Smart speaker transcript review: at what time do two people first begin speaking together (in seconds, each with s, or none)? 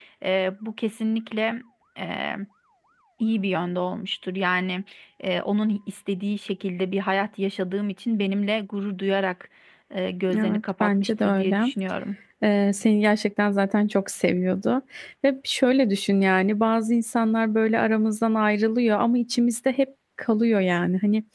10.3 s